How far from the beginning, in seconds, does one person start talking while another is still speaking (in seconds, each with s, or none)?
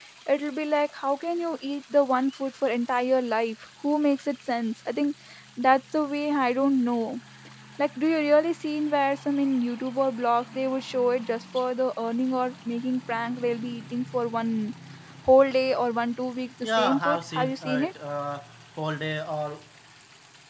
16.6 s